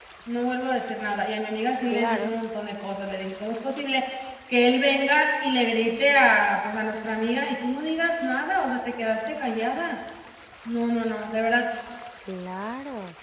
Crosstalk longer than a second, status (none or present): none